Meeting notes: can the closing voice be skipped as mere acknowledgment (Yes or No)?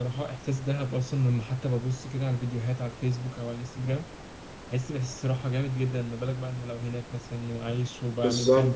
No